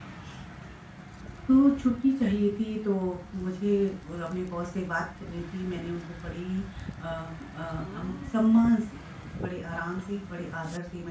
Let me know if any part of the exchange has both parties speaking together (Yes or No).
No